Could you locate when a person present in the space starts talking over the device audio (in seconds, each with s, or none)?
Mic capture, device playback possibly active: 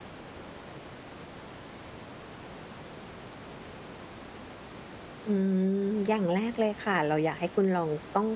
5.3 s